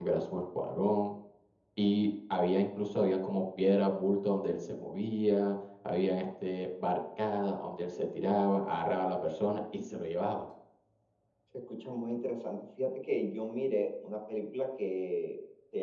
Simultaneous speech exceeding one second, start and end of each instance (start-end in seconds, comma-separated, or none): none